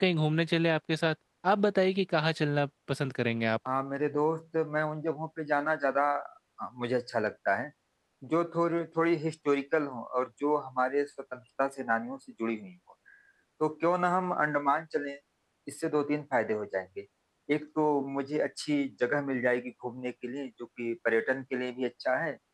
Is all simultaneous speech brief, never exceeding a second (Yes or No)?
Yes